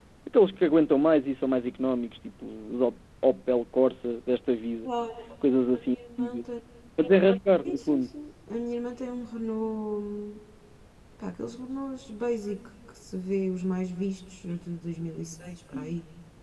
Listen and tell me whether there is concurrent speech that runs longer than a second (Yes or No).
No